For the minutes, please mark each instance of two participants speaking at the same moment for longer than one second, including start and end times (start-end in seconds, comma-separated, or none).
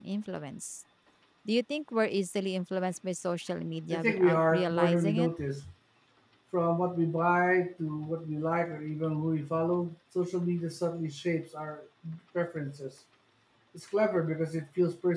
3.9-5.3